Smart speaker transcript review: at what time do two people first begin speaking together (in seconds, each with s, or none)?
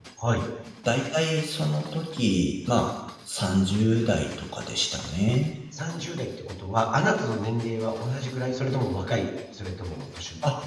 none